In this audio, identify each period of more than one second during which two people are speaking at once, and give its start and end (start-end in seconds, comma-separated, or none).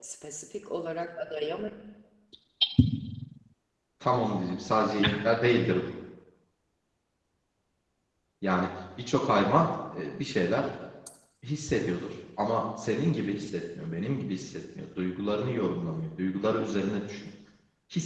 none